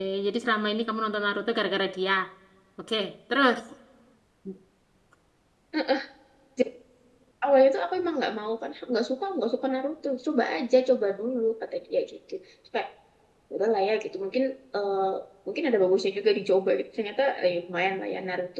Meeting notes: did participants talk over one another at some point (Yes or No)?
No